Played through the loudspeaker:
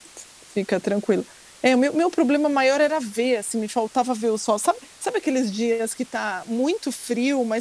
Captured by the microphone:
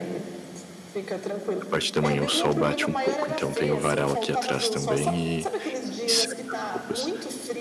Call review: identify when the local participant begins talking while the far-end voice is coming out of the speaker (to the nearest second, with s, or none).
2 s